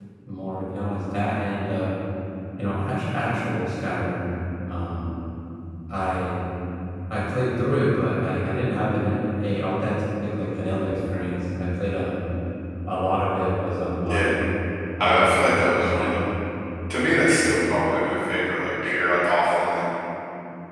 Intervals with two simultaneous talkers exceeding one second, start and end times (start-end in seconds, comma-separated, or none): 15.0-16.2